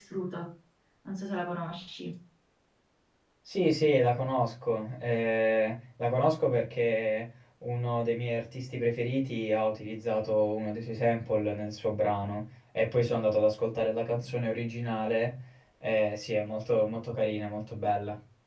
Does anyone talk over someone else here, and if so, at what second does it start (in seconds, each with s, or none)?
none